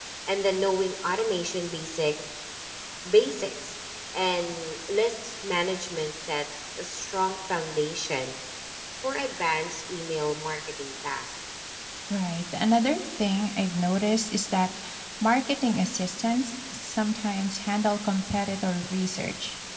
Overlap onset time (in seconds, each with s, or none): none